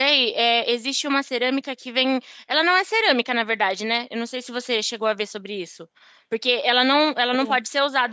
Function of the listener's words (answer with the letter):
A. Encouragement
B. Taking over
A